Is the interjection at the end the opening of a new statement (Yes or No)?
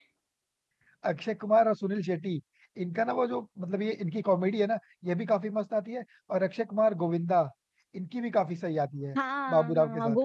Yes